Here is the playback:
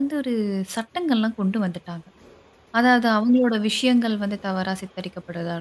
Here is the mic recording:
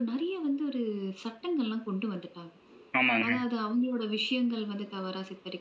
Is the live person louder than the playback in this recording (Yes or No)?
Yes